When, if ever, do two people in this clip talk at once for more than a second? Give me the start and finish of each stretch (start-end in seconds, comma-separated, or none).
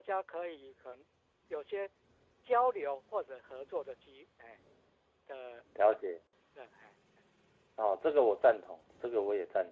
none